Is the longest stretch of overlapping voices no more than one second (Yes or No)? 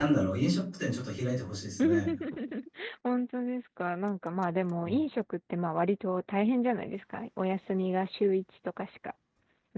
Yes